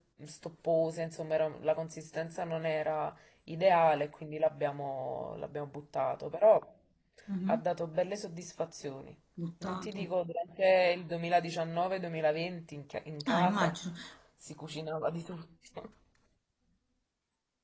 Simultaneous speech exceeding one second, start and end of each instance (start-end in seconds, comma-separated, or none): none